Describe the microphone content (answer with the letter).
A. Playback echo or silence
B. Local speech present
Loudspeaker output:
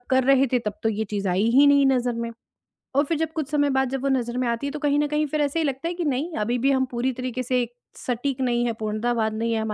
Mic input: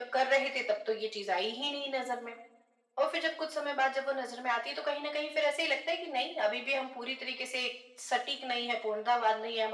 A